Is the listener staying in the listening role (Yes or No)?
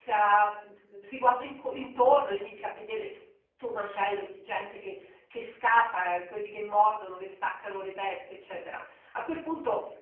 Yes